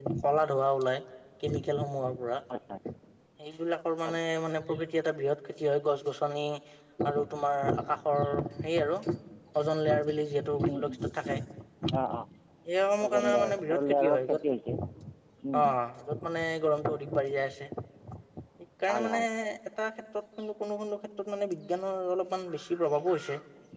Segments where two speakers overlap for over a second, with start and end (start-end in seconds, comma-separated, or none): 13.0-14.4